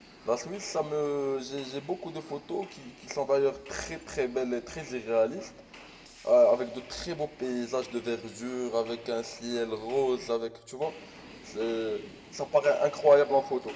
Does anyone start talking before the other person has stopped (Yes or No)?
No